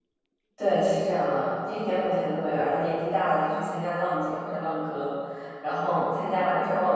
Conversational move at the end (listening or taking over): listening